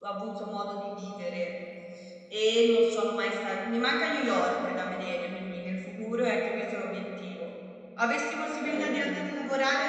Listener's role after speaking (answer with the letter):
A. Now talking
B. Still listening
B